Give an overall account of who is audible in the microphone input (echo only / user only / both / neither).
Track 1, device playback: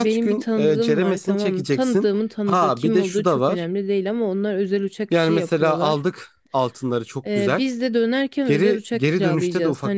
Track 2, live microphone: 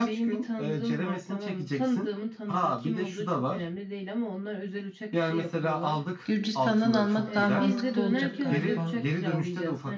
both